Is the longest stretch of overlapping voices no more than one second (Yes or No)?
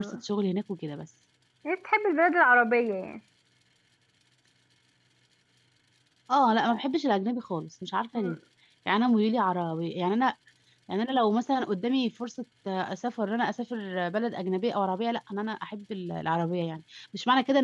Yes